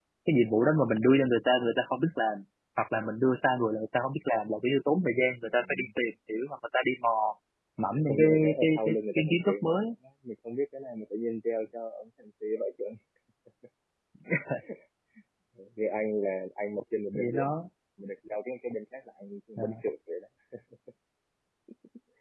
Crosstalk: present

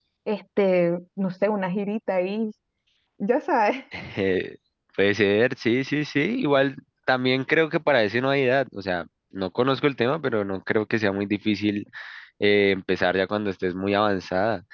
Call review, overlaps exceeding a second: none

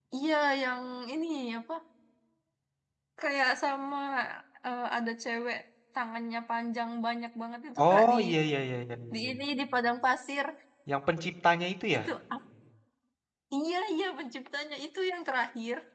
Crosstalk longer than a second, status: none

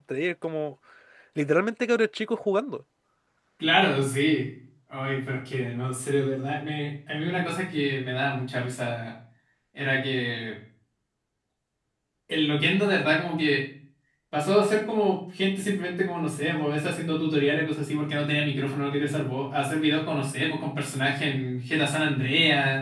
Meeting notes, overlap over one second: none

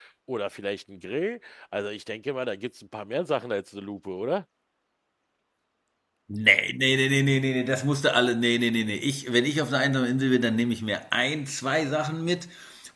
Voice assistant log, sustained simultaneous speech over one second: none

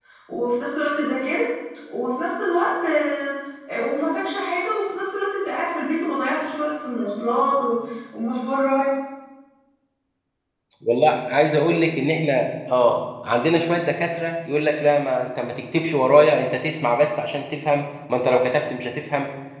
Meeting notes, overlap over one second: none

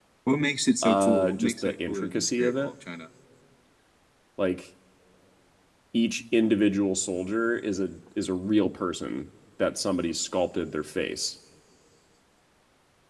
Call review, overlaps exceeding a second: present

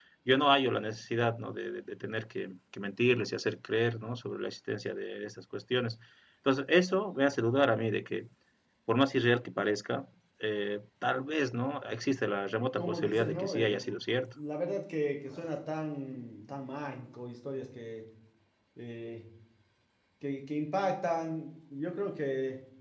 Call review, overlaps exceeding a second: present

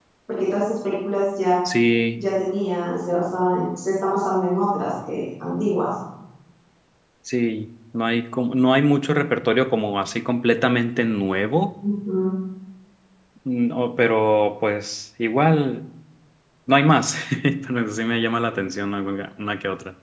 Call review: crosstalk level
none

